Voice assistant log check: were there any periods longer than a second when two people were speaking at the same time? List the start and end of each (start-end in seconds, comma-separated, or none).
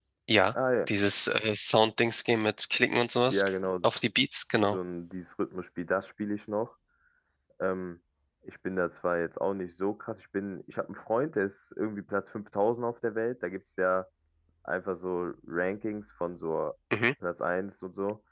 none